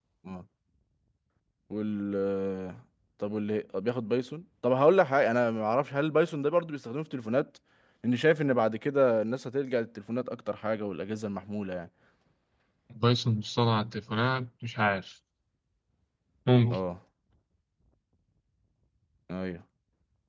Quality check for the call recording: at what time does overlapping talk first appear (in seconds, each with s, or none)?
none